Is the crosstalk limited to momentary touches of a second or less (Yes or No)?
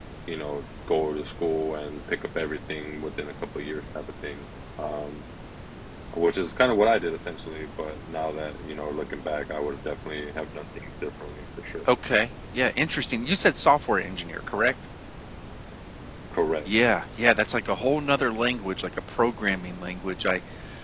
Yes